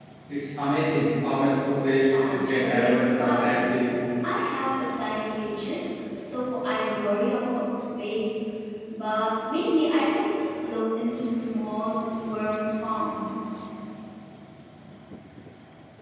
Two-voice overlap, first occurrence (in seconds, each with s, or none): 2.1 s